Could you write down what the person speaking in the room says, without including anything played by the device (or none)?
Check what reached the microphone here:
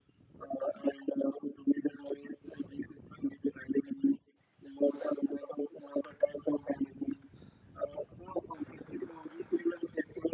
none